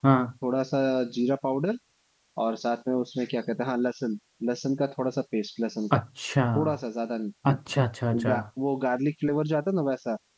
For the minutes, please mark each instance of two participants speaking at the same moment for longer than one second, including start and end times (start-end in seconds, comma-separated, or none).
none